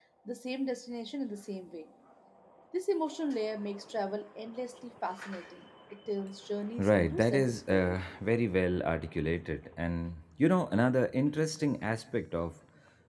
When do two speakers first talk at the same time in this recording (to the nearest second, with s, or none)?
7 s